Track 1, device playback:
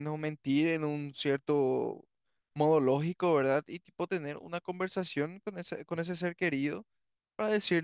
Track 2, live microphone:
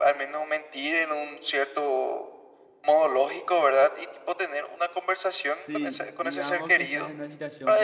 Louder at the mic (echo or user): echo